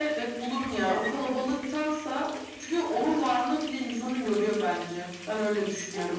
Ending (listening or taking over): taking over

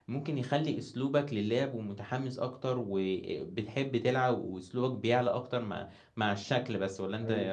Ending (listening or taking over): taking over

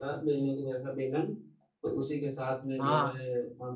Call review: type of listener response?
listening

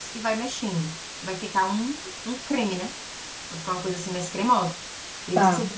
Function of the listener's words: listening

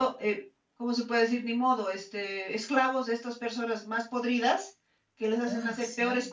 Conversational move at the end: listening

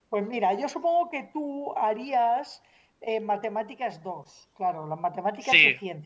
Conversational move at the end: listening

